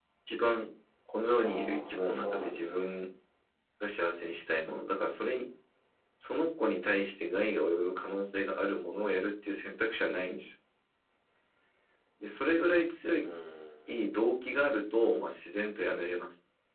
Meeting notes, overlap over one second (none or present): present